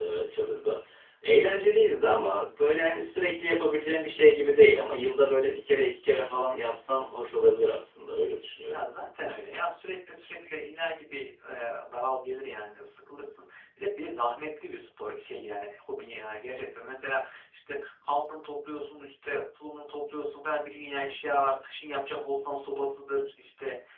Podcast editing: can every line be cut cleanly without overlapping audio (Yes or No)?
Yes